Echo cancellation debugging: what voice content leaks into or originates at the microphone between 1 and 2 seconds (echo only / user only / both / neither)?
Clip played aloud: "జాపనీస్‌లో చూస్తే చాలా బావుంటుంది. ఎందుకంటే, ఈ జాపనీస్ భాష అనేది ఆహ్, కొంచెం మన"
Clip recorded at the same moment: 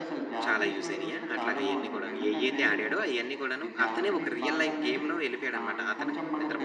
both